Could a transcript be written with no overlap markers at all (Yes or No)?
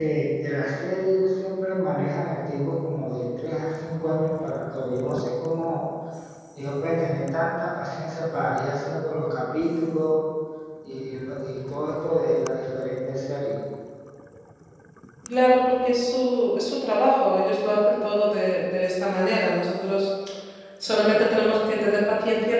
Yes